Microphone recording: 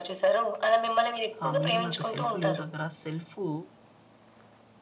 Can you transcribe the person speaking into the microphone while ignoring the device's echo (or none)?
ఆహ్, మీరన్నట్టు సెల్ఫ్ లేవ్ దగ్గర సెల్ఫూ